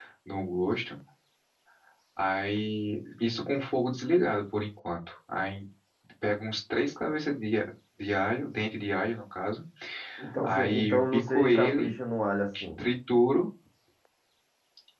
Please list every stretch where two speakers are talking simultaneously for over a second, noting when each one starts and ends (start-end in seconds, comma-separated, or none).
10.4-11.9